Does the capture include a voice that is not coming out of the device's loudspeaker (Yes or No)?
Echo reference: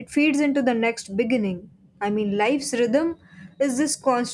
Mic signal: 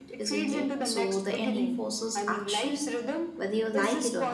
Yes